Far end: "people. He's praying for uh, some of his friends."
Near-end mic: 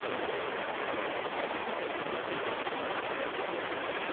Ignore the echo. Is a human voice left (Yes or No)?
No